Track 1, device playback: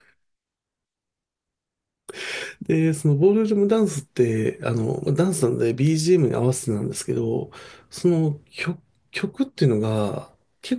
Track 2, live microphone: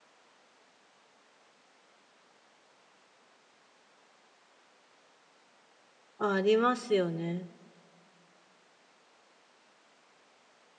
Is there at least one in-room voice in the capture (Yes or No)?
Yes